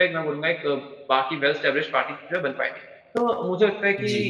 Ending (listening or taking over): listening